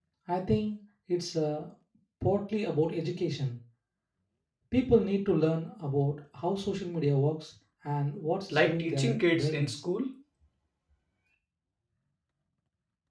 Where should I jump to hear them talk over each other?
8 s

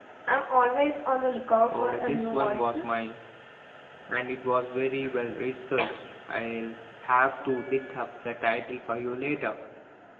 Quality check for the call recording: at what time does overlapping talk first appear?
2 s

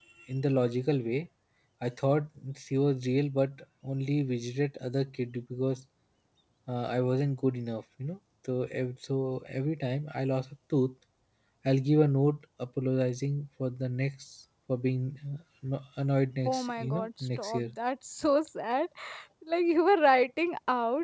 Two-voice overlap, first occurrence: 16 s

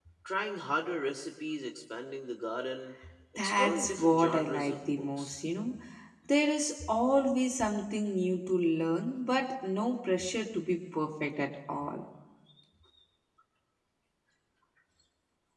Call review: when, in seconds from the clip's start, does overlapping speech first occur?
3 s

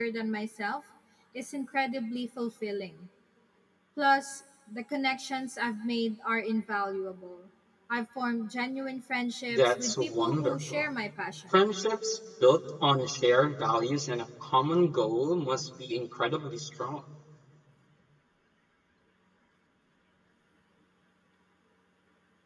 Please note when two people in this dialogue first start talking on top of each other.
10 s

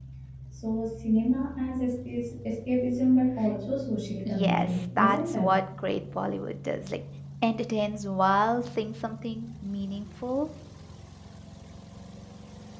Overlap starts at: 4 s

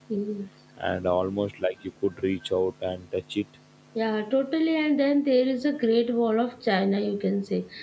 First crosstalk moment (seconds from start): none

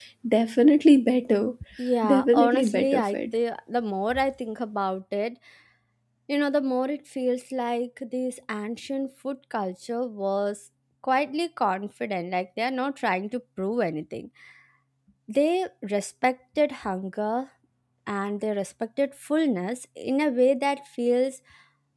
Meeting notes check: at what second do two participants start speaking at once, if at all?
2 s

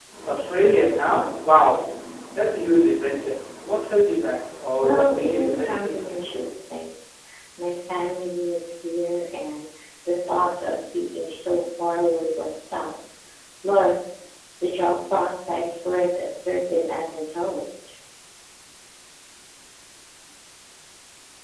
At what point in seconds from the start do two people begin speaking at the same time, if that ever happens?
5 s

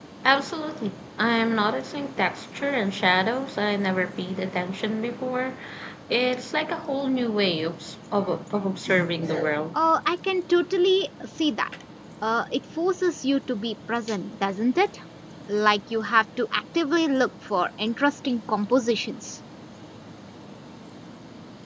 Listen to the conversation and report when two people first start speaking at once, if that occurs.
none

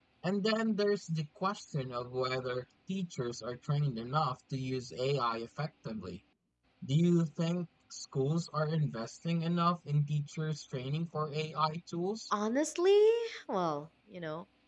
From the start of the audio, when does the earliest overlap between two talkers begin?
none

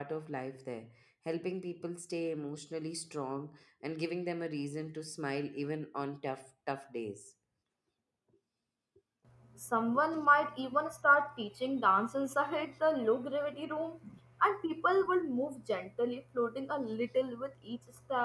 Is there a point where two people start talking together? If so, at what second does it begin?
none

